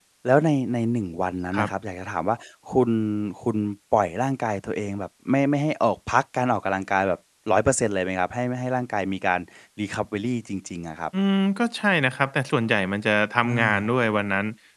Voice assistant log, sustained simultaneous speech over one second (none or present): none